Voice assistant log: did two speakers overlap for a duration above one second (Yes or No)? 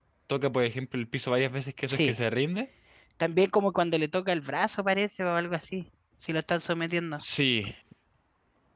No